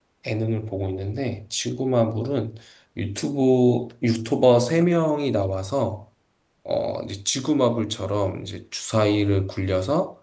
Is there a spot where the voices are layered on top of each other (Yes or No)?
No